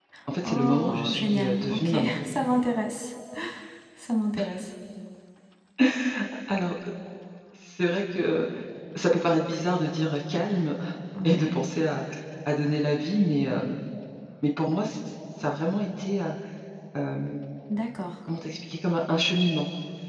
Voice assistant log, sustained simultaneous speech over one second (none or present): present